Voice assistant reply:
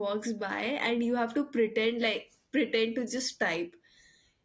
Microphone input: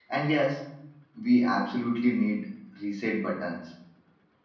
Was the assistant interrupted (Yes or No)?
Yes